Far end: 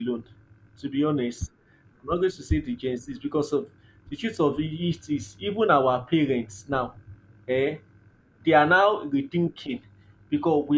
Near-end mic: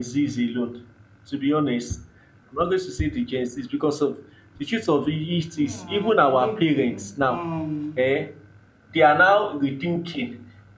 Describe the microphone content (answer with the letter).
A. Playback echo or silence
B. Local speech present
B